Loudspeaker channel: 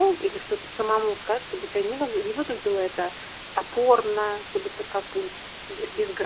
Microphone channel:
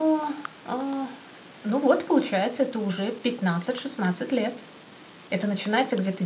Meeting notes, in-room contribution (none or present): present